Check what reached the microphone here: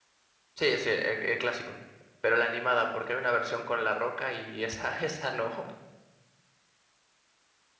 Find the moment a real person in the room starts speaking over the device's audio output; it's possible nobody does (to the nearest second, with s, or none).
1 s